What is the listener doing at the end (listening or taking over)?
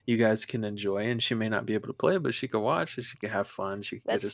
listening